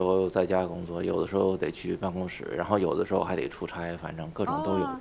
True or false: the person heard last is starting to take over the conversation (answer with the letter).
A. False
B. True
B